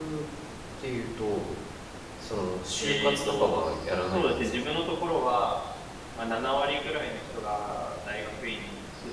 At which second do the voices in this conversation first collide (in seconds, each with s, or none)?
2.8 s